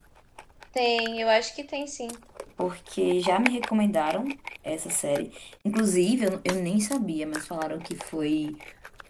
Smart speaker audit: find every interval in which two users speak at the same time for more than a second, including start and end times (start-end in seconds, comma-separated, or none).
none